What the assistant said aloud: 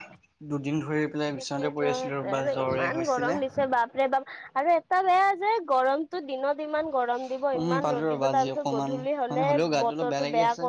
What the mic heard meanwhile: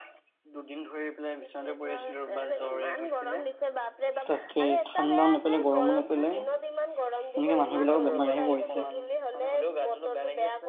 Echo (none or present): present